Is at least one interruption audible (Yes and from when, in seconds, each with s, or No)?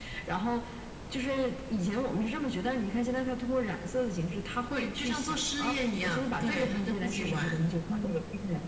Yes, from 4.7 s